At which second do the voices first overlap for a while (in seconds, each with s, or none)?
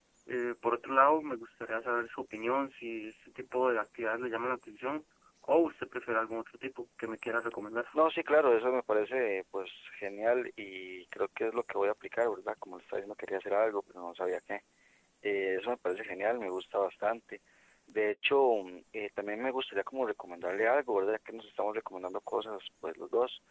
none